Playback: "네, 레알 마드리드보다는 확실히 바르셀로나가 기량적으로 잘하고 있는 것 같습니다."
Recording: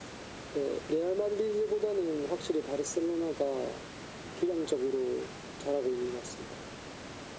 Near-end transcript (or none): none